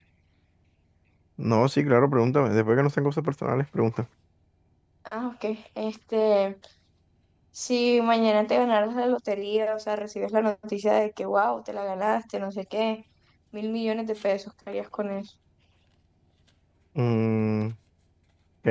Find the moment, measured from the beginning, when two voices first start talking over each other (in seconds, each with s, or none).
none